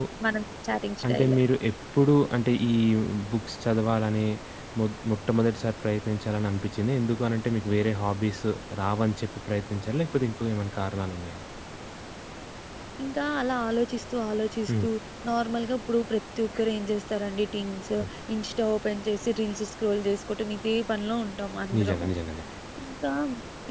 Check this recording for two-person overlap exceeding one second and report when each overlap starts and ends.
none

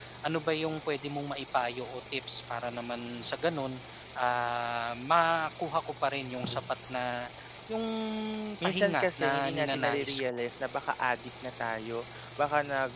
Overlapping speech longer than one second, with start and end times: 8.6-10.4

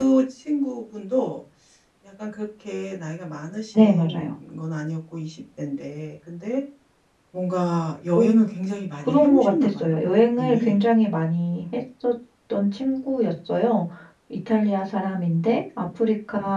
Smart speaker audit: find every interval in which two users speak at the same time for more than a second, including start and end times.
9.1-10.8

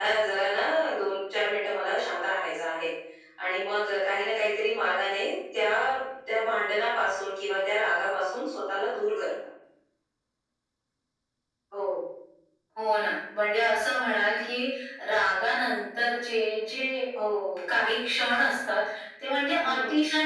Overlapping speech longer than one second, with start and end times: none

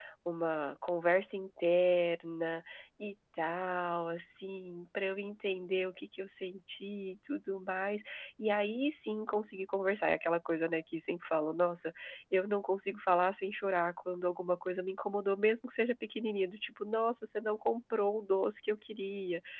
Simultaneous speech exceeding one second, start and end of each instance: none

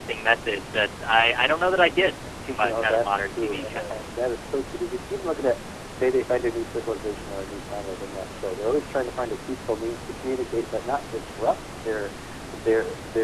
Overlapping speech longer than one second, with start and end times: 2.6-4.2

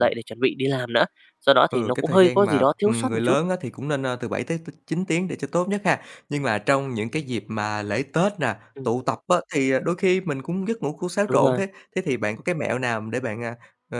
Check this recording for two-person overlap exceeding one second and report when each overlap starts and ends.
1.7-3.4

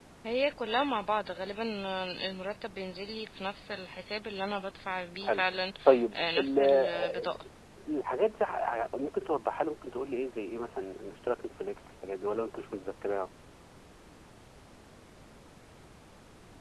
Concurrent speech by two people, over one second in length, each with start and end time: 6.1-7.4

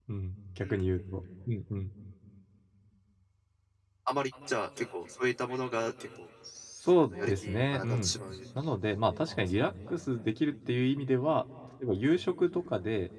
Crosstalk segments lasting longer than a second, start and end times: 6.9-8.1

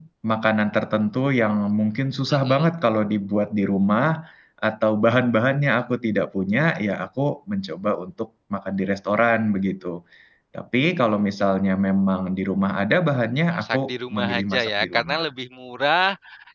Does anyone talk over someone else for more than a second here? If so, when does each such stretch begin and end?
13.5-15.2

